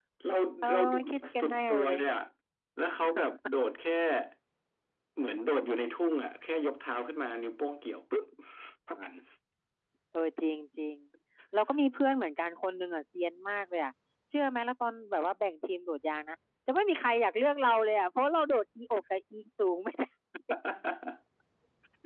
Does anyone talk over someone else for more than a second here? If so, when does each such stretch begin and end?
0.6-2.0

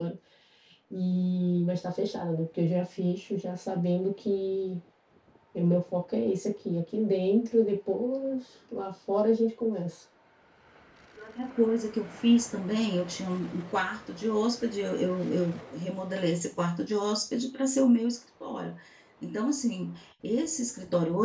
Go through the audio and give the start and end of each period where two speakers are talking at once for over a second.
none

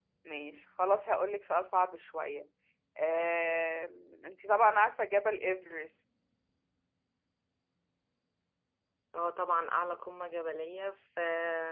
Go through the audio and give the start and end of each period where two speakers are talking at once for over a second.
none

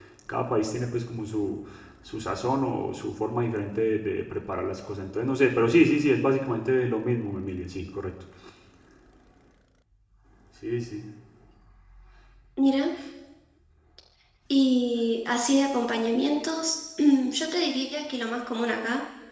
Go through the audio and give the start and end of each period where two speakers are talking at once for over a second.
none

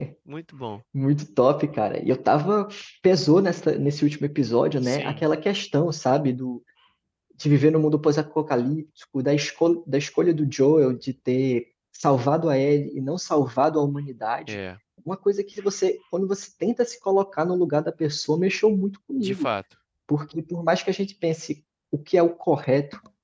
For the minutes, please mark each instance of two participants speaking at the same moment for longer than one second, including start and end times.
none

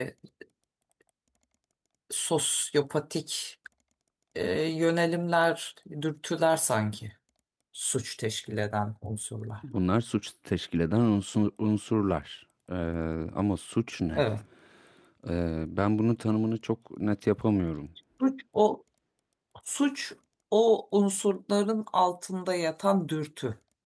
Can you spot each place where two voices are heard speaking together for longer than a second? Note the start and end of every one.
none

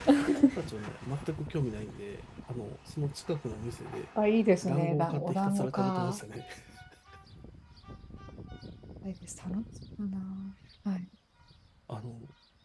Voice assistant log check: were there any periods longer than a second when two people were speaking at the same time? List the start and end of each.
4.6-6.2

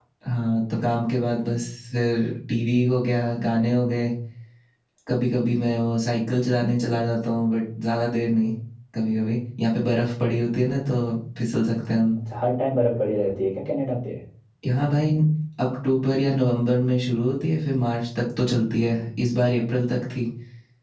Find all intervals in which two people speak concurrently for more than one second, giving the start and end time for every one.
none

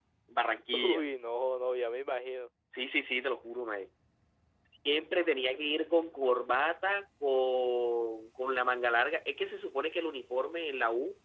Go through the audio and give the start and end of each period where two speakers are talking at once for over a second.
none

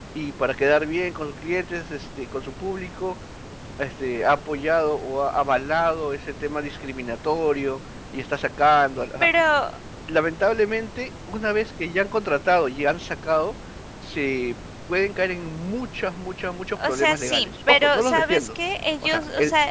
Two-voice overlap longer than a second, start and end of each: 16.8-18.5

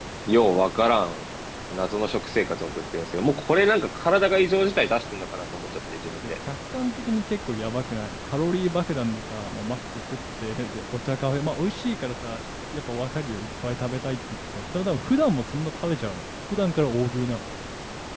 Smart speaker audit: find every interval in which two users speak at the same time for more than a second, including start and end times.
none

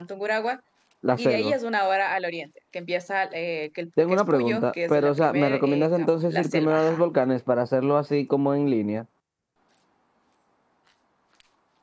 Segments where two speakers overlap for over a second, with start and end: 4.0-7.0

